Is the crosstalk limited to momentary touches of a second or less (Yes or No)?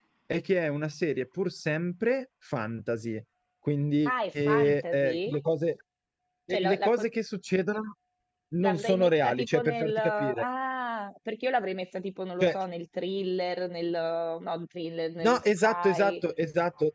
No